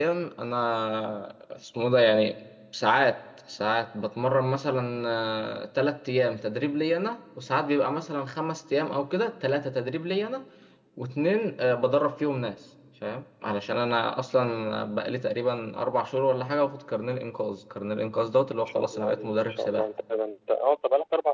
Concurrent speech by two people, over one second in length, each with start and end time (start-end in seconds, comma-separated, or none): 18.6-19.9